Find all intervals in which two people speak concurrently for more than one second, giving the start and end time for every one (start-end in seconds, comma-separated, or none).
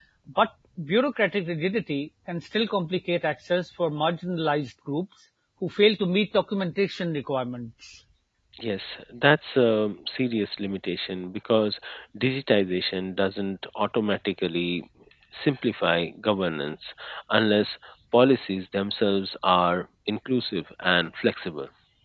none